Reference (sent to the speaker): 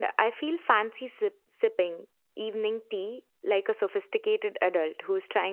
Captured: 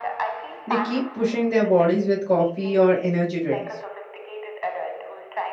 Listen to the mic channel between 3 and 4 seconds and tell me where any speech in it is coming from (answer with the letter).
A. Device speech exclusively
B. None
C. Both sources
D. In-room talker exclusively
C